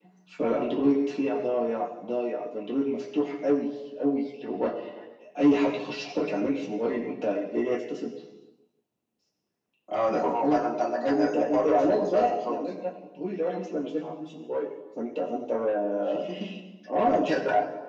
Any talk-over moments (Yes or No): Yes